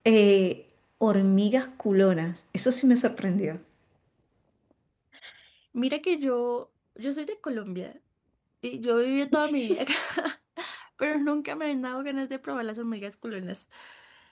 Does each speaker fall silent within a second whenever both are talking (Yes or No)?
Yes